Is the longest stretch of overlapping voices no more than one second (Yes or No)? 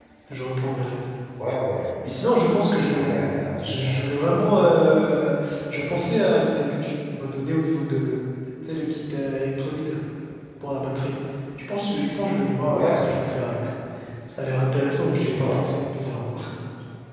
Yes